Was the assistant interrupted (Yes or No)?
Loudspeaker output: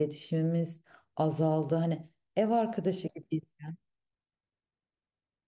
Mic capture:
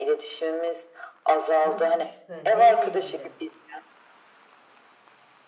Yes